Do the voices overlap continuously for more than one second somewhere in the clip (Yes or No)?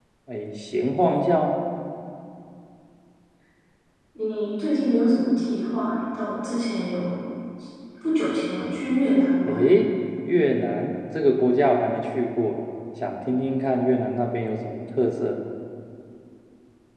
No